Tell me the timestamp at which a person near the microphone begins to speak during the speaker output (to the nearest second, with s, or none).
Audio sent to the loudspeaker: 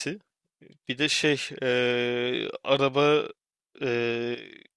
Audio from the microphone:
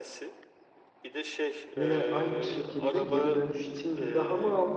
2 s